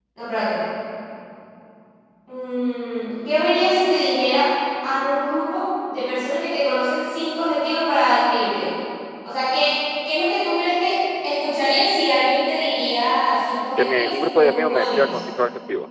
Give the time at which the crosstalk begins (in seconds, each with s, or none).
13.8 s